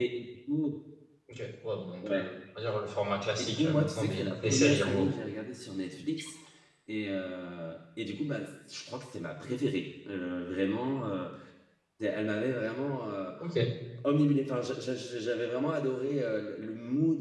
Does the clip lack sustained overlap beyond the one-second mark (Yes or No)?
No